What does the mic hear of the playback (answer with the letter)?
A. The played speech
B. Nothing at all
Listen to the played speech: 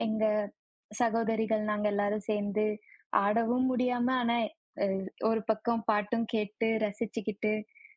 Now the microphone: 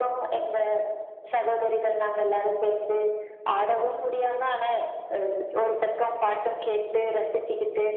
A